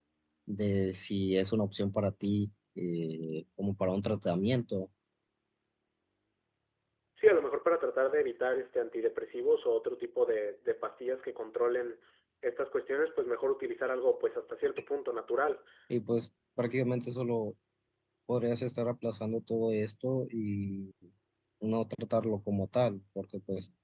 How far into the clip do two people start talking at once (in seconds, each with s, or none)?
none